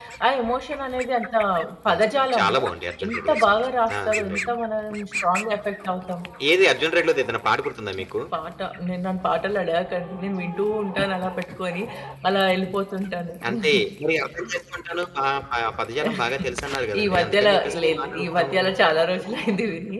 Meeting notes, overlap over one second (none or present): present